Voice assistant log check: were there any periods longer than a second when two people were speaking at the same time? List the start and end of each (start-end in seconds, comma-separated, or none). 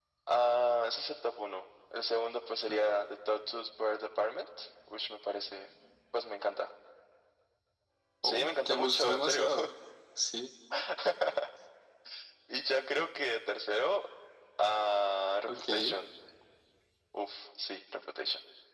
8.2-9.4